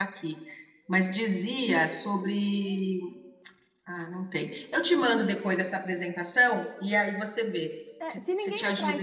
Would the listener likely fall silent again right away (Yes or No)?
No